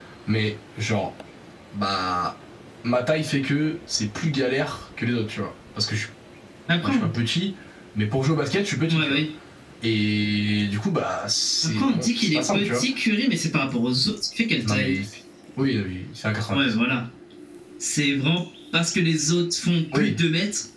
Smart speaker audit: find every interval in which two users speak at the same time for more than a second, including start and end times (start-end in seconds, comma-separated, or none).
11.6-12.8